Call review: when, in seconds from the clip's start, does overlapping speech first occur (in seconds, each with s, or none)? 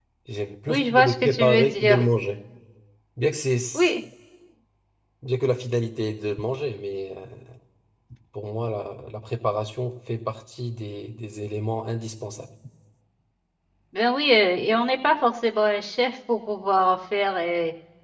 0.7 s